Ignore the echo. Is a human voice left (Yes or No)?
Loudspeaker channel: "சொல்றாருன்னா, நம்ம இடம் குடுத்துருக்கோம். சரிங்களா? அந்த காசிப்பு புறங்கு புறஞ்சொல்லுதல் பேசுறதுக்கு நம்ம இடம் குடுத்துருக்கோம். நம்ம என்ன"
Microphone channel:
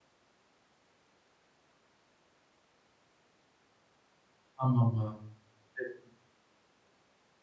Yes